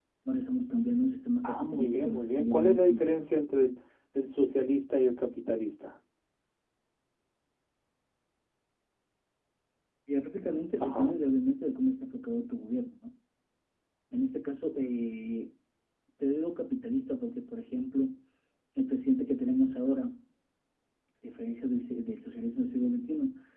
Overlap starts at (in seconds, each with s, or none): 1.4 s